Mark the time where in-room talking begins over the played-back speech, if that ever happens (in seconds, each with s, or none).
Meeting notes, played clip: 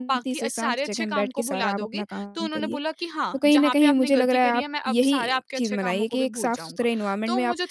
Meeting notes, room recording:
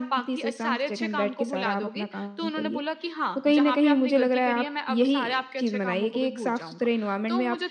none